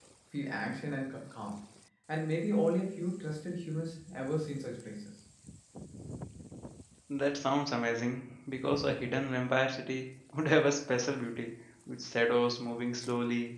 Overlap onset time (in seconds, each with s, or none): none